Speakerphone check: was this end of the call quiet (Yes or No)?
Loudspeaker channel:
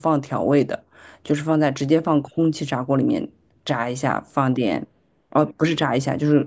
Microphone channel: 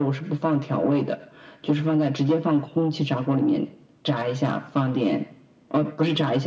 Yes